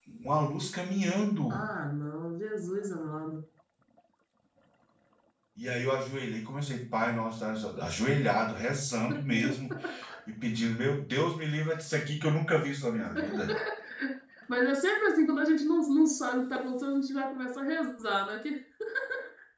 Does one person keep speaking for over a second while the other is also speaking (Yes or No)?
No